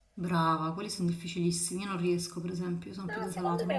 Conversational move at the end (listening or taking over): taking over